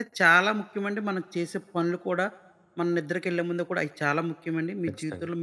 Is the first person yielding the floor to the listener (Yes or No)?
No